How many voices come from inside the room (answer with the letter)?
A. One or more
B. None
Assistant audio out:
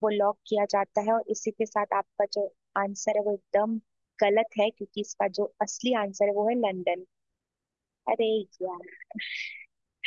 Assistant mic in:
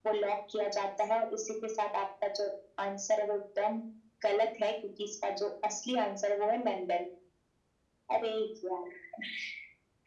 B